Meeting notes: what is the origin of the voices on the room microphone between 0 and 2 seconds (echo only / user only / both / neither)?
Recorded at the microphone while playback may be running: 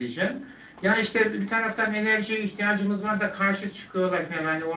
echo only